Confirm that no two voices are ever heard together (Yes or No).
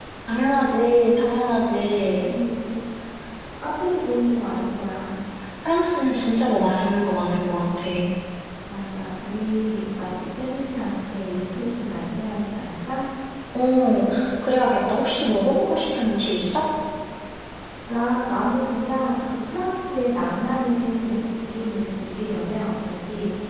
Yes